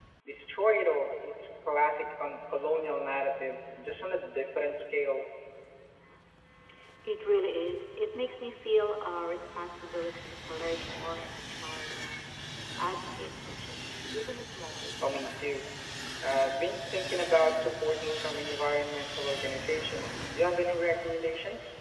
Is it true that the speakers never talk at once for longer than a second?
Yes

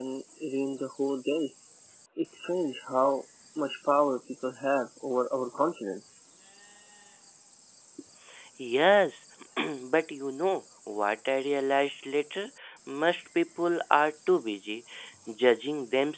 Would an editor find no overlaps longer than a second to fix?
Yes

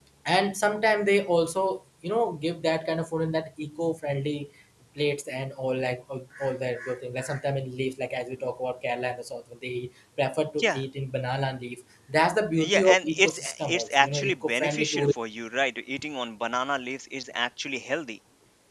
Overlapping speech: Yes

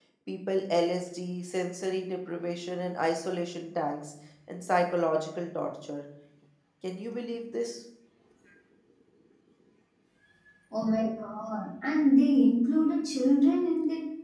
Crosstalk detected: No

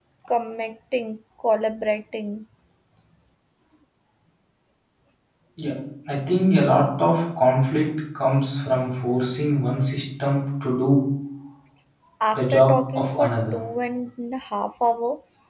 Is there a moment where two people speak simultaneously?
Yes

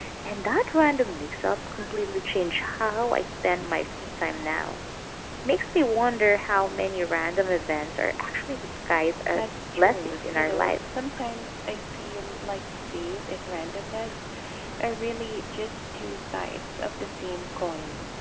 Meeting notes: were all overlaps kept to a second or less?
No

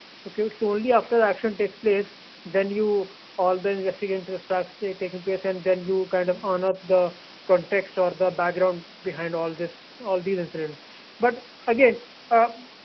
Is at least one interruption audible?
No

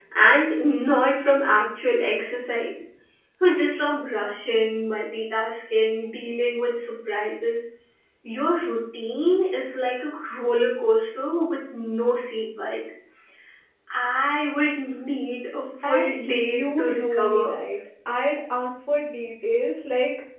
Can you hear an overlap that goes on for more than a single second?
Yes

